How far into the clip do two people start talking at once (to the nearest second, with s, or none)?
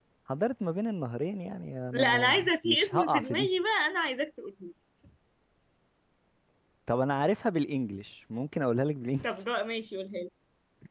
2 s